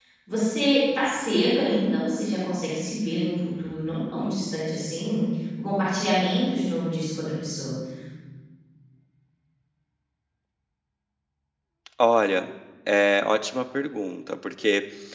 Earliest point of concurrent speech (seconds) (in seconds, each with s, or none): none